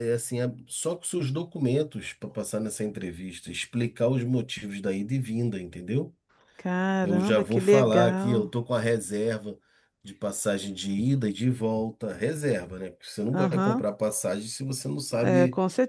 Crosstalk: present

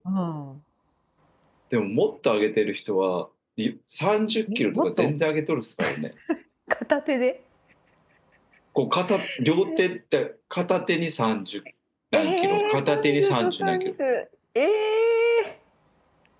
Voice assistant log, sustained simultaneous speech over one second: present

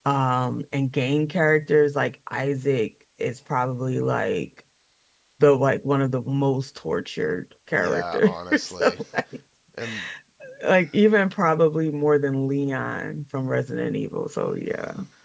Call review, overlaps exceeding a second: present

